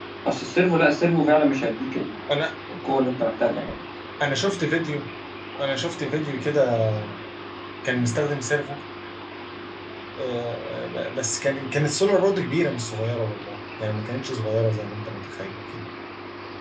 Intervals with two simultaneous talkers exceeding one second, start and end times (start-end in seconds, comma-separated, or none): none